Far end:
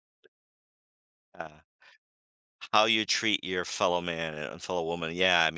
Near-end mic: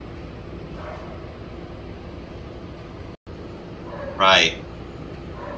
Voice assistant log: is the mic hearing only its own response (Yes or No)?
No